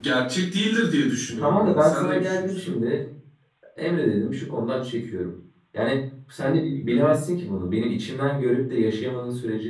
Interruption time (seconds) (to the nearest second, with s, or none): 1 s